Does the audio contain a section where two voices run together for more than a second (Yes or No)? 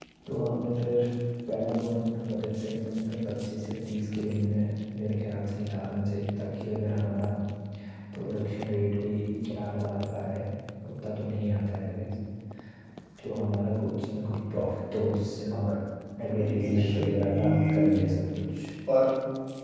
Yes